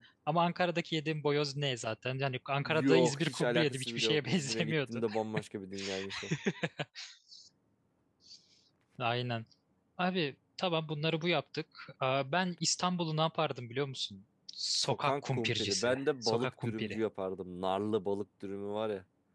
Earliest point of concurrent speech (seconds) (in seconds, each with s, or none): 2.6 s